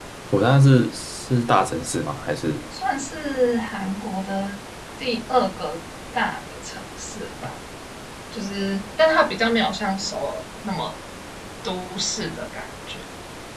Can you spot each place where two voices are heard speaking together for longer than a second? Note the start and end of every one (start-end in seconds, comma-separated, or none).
none